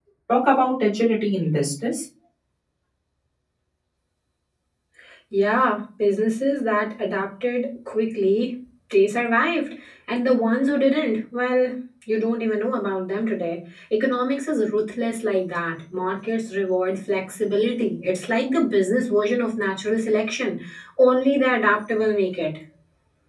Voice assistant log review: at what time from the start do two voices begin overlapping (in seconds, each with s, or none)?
none